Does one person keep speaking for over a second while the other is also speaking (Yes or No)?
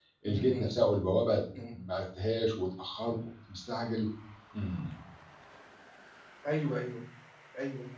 No